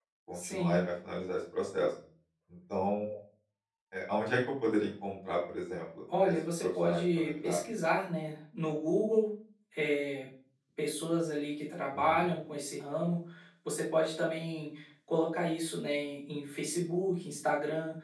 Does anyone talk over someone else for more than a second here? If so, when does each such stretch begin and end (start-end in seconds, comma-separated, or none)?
6.2-7.6